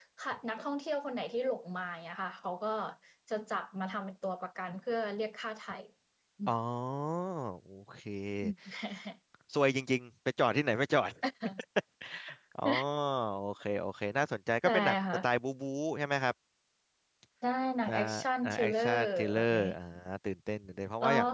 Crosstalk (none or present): present